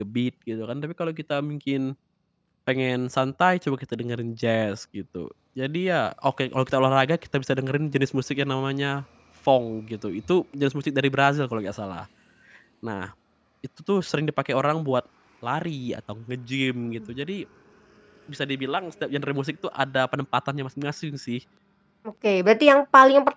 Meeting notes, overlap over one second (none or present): none